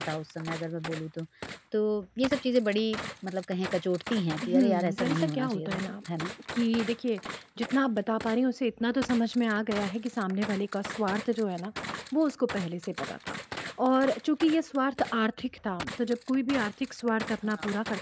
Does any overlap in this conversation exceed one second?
Yes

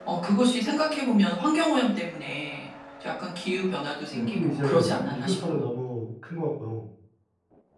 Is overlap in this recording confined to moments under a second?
No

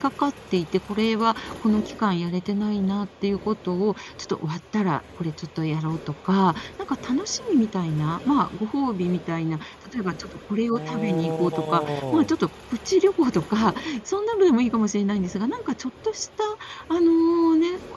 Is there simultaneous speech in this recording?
Yes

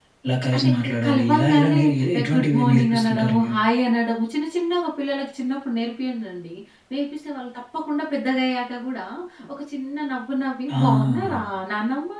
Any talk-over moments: Yes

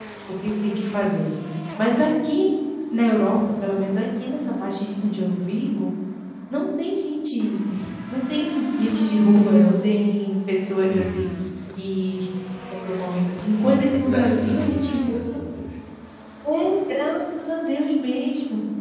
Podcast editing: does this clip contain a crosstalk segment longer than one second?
Yes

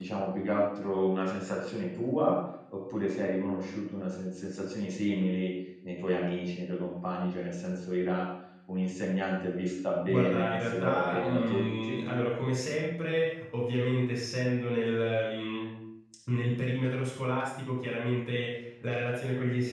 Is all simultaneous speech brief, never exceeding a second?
No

